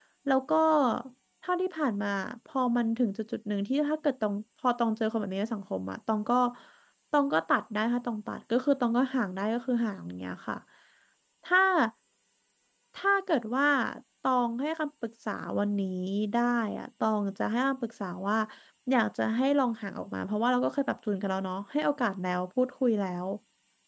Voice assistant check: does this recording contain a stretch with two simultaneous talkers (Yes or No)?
No